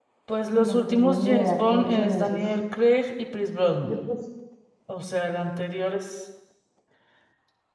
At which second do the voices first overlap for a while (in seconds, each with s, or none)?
0.5 s